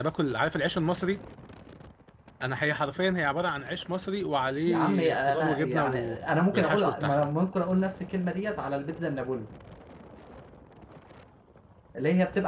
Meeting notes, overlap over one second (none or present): present